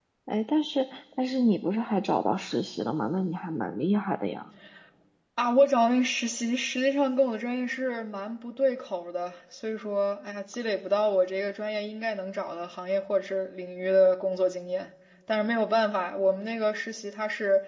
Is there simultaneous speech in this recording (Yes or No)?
No